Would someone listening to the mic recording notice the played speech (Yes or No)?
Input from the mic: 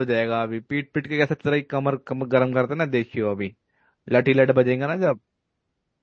No